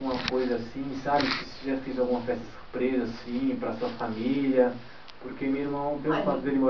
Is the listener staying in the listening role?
Yes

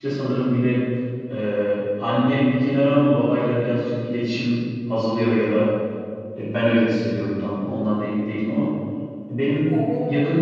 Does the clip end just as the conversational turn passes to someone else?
No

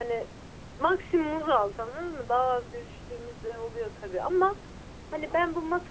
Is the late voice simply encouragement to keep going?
Yes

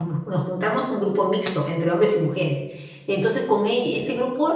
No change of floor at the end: Yes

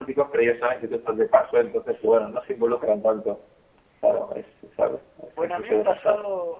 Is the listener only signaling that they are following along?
No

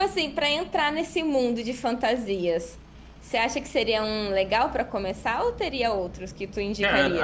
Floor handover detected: Yes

